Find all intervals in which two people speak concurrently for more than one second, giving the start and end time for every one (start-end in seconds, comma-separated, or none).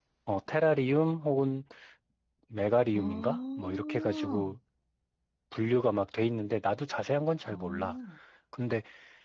3.0-4.5